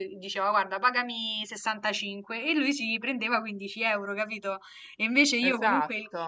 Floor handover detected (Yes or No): No